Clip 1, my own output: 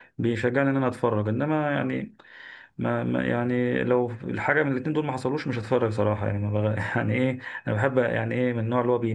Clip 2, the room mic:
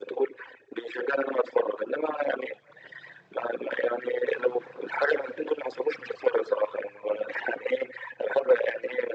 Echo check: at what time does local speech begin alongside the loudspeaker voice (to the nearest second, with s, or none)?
none